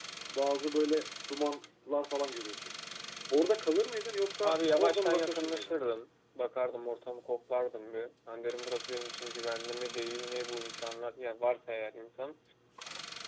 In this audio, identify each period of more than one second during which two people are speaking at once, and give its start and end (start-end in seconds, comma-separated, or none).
4.4-5.8